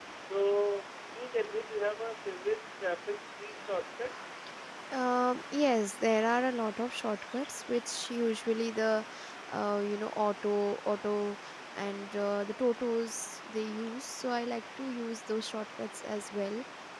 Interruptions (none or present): none